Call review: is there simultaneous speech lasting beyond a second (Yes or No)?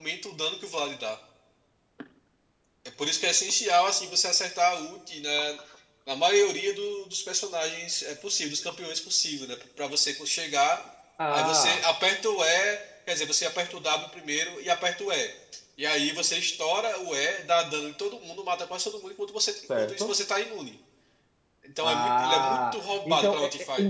Yes